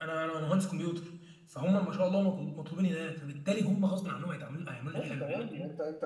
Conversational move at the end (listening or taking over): taking over